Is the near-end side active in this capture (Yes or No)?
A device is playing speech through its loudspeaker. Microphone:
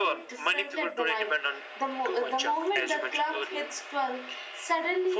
No